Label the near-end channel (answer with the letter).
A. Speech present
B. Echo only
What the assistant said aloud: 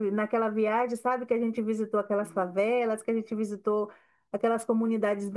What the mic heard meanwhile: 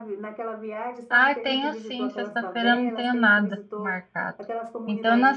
A